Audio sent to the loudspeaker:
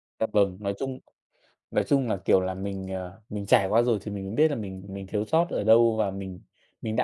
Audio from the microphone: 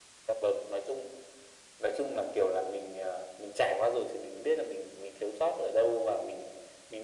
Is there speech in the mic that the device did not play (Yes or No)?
No